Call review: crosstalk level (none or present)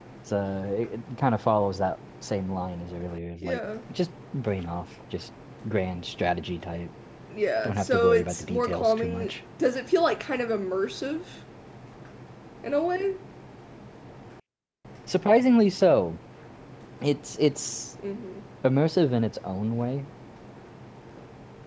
present